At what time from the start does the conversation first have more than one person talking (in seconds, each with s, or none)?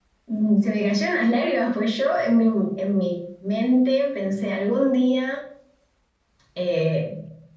none